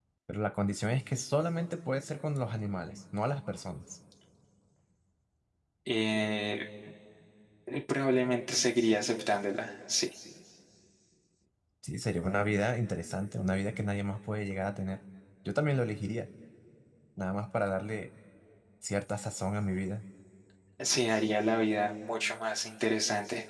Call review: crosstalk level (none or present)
none